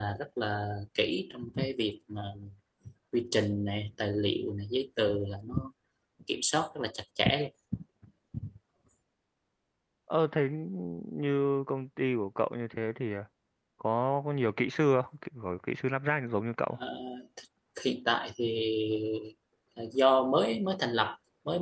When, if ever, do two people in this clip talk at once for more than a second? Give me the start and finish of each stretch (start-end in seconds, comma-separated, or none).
none